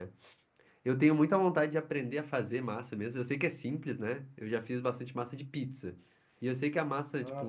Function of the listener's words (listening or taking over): listening